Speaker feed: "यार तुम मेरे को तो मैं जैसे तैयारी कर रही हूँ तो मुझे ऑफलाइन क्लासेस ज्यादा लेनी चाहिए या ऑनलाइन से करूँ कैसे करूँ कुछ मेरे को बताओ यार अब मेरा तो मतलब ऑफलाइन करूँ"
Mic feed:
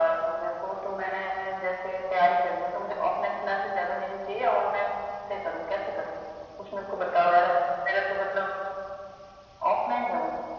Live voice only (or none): none